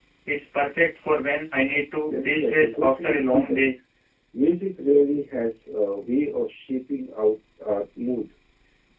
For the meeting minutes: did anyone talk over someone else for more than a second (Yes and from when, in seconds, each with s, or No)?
Yes, from 2.1 s